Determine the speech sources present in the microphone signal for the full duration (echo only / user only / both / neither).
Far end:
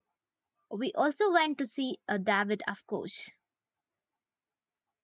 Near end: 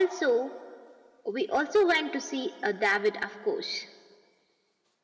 echo only